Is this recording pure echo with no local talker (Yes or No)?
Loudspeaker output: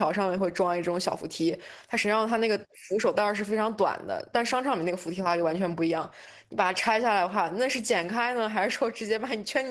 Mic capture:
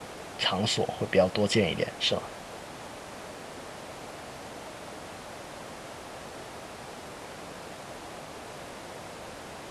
No